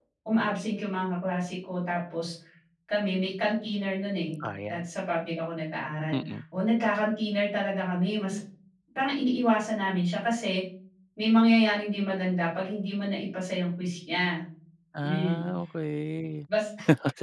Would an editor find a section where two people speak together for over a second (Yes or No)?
No